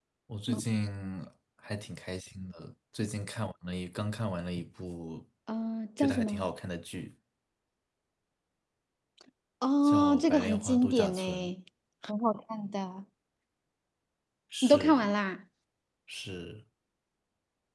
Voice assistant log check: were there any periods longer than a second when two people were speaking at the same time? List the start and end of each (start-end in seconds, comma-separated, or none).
9.8-11.5